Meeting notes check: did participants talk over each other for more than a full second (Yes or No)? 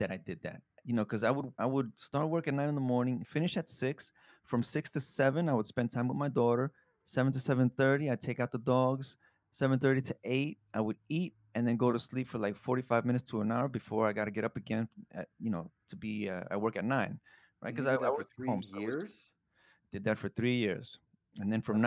Yes